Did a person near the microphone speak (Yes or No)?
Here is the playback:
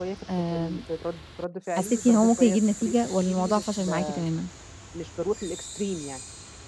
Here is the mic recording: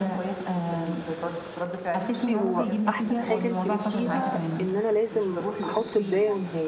Yes